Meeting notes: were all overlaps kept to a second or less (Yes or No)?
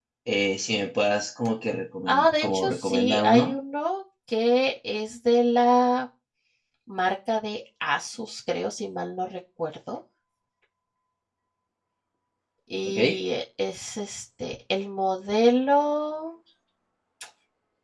No